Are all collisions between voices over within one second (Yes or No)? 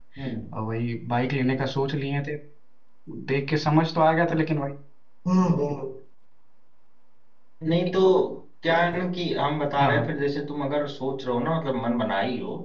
Yes